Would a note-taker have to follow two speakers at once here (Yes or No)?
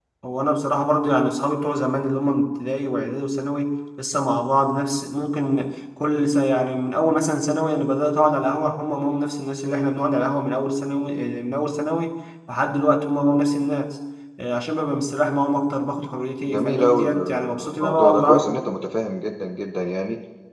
Yes